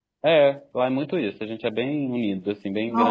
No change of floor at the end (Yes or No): No